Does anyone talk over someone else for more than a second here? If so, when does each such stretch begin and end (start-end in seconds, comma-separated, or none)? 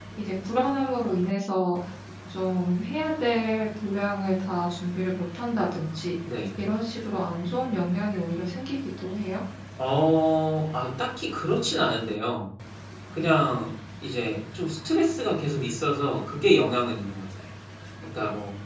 none